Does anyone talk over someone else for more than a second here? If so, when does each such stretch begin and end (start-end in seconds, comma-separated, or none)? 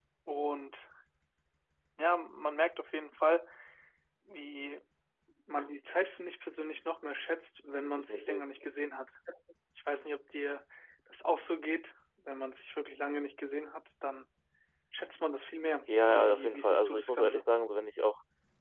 16.0-17.4